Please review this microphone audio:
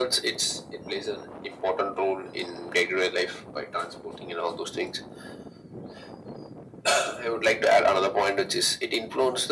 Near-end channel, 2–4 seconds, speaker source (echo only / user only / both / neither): echo only